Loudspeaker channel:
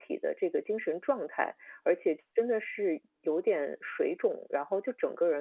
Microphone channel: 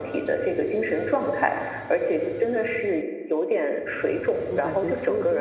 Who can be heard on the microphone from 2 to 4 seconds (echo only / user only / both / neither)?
echo only